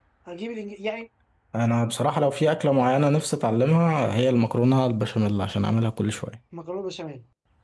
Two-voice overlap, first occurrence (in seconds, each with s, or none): none